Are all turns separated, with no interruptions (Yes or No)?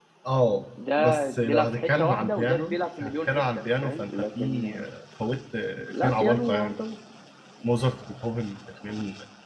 No